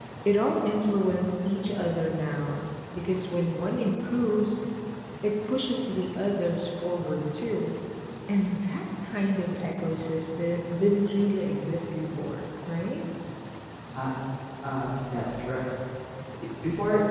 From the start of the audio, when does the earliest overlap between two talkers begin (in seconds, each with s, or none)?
none